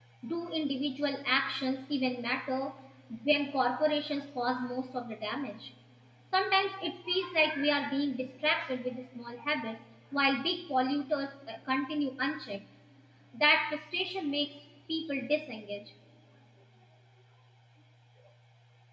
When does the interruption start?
none

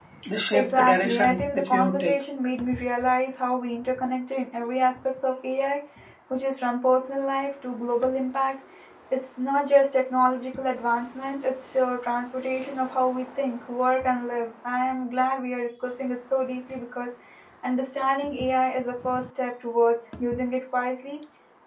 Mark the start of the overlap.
1 s

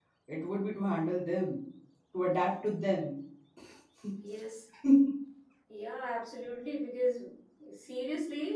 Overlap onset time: none

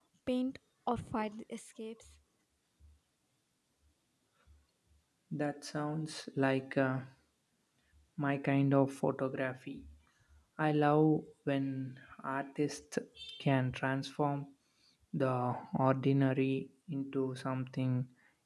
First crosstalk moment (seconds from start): none

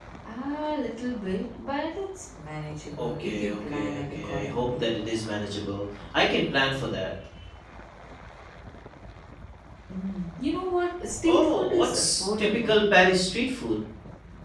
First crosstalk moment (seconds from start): 3 s

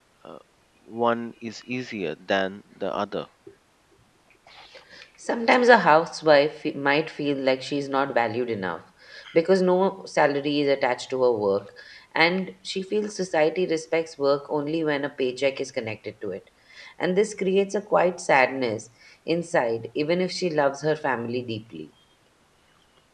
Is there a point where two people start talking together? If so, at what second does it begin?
none

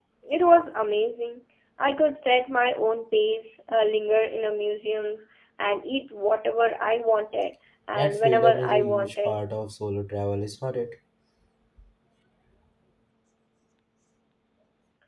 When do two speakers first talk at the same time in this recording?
8 s

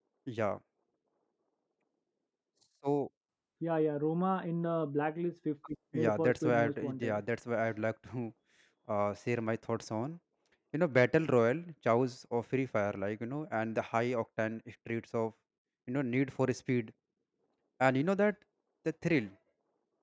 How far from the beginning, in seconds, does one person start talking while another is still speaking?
6 s

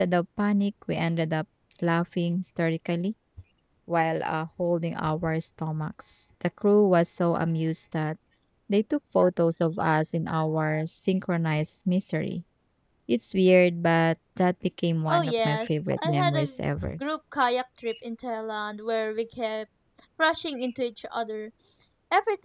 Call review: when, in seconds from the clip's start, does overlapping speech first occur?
15 s

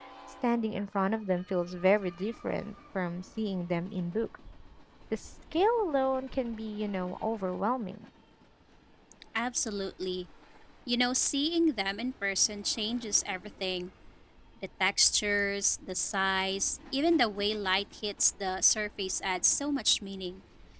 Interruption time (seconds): none

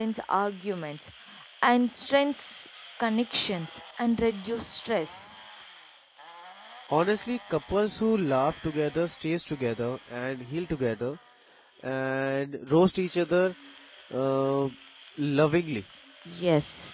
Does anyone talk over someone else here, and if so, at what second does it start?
none

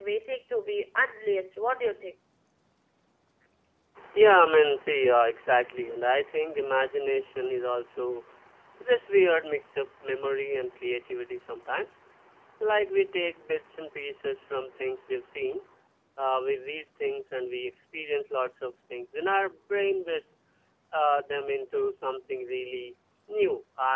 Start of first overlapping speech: none

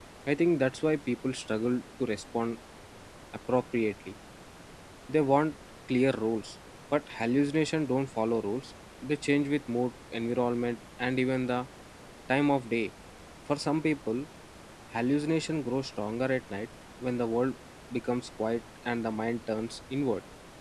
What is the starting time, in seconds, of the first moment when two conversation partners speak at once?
none

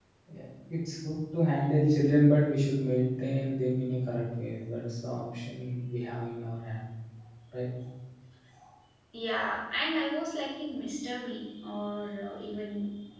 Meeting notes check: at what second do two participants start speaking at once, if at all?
none

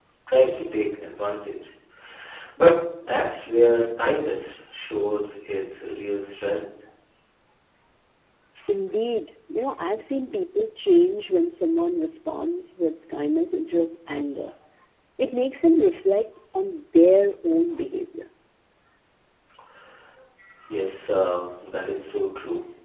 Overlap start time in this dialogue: none

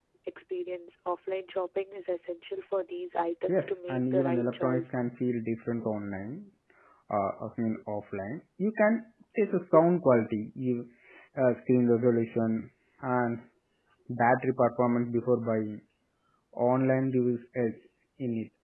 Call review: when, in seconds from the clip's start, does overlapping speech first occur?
3 s

